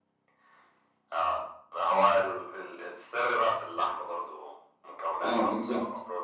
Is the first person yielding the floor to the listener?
Yes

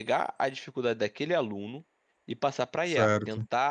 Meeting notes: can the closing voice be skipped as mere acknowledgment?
Yes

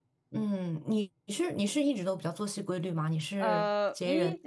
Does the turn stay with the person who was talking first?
No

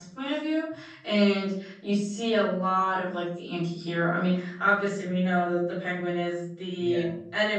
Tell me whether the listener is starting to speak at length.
No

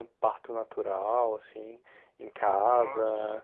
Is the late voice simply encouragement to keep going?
Yes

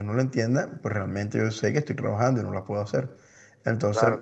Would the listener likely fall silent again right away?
Yes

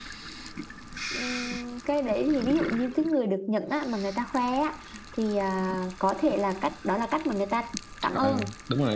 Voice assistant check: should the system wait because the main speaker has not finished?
No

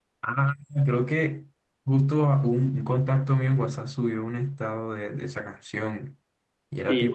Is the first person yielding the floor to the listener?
No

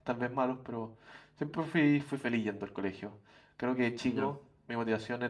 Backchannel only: Yes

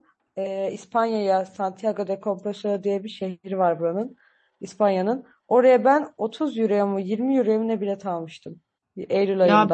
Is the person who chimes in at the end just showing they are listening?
No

